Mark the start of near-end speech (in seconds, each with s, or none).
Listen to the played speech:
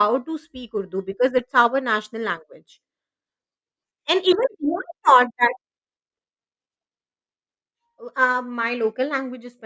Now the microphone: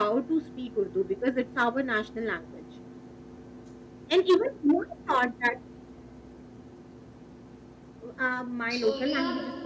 8.8 s